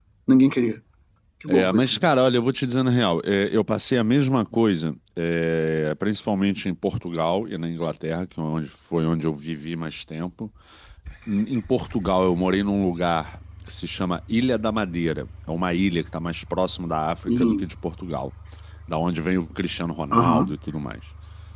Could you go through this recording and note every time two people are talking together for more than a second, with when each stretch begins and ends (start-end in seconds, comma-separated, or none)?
none